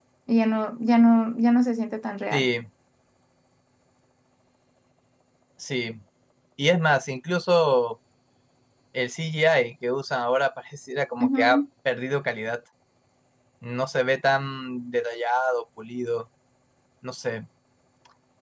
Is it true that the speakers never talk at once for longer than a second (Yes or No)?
Yes